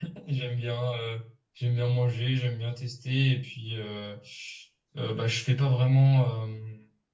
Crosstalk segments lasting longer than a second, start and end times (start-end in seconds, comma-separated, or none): none